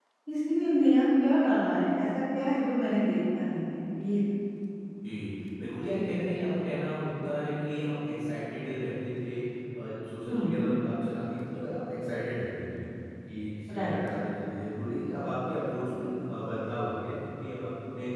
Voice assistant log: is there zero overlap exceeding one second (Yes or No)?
Yes